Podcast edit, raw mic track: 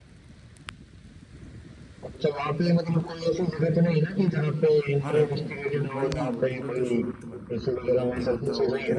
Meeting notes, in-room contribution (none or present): present